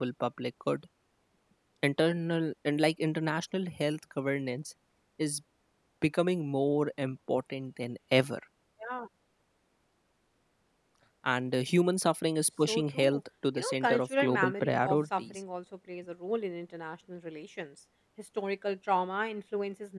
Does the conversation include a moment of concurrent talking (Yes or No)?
Yes